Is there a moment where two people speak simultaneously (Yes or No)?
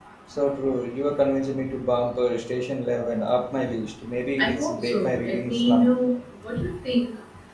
Yes